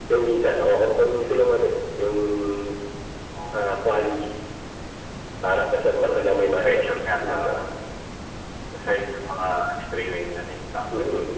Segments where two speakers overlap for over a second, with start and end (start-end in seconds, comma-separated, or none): 5.9-7.6